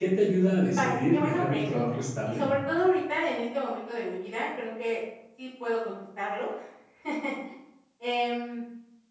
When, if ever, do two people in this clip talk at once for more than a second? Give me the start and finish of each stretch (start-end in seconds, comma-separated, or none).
0.7-2.5